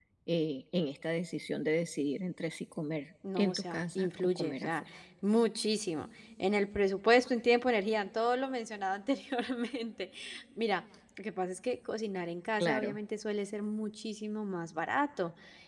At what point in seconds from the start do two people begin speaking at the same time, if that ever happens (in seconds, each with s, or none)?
3.4 s